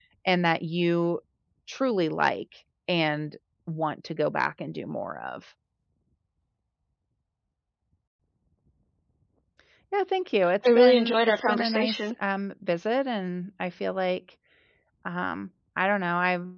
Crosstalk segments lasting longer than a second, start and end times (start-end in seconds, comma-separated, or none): 10.8-12.0